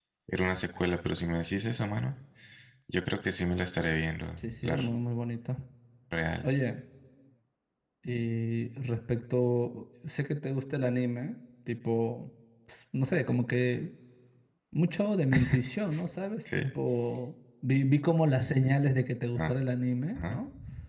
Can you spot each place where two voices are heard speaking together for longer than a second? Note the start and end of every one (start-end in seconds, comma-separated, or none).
none